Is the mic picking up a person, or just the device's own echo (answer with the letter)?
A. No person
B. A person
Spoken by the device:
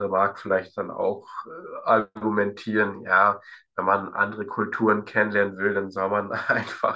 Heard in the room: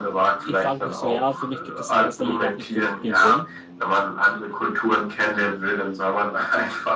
B